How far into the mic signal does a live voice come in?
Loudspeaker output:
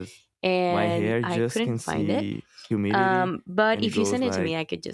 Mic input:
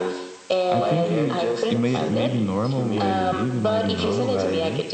1 s

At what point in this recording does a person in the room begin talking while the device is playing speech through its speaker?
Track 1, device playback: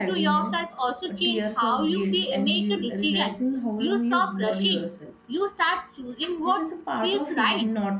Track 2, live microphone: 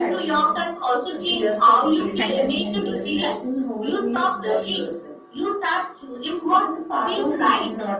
2 s

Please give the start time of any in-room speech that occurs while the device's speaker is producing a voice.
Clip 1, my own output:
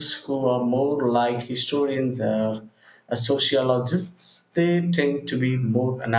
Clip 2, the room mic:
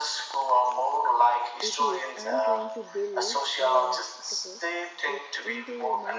2 s

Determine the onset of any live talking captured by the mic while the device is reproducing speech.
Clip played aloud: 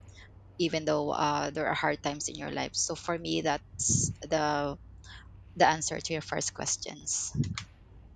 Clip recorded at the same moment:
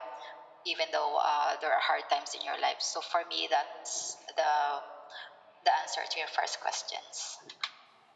none

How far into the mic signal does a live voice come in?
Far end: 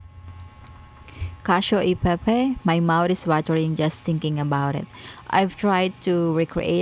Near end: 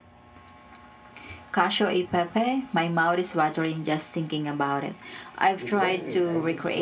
6 s

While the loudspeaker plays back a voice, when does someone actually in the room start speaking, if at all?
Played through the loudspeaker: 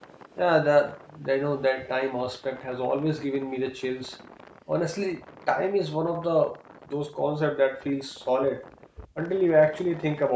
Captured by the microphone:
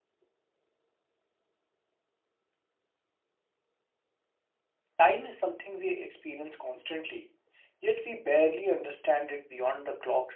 5 s

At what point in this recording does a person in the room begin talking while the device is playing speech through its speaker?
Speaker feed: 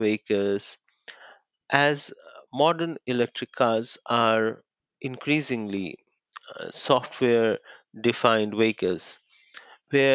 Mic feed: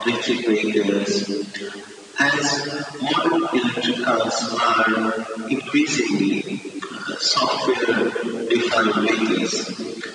none

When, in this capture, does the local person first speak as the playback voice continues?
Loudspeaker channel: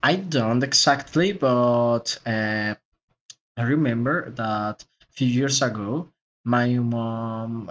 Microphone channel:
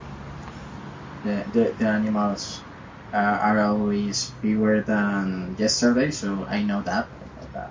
1 s

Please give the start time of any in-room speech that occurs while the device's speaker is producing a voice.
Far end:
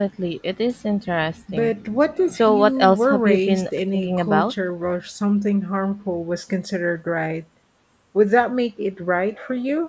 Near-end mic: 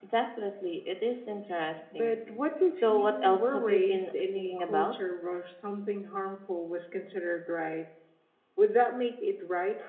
none

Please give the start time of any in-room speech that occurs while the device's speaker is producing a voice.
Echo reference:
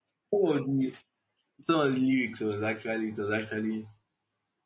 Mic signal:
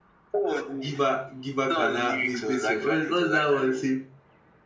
1 s

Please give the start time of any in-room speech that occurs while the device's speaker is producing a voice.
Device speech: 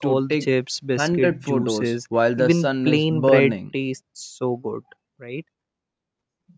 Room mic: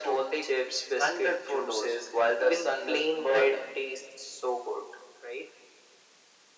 none

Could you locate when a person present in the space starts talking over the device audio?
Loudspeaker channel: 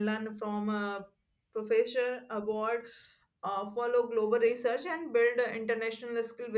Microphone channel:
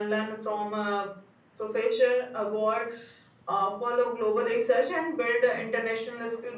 none

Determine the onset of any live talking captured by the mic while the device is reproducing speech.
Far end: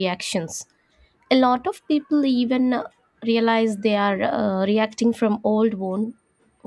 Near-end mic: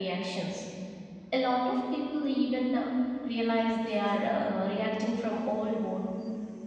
none

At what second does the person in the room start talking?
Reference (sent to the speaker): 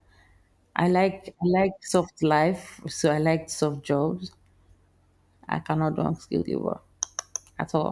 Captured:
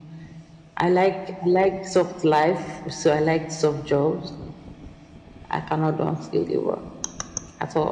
none

